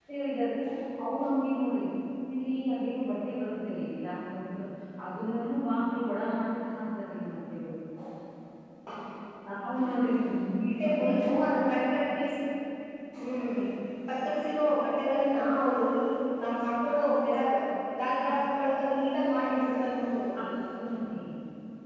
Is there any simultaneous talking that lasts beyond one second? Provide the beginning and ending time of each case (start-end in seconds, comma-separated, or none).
none